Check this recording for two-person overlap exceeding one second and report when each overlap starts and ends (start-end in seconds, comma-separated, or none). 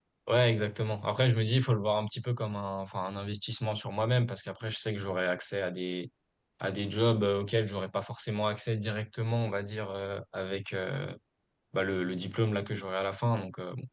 none